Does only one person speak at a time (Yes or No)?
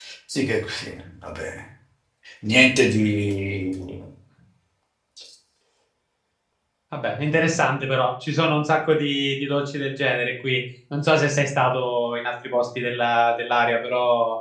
Yes